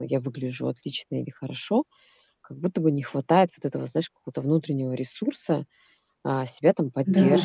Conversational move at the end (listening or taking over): listening